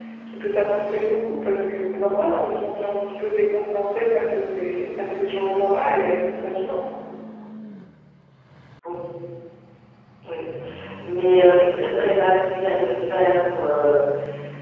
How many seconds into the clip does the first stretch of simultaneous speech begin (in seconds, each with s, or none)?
none